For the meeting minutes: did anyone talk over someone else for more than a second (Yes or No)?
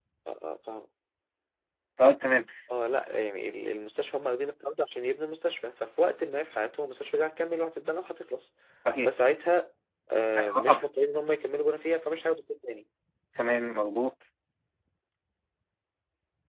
No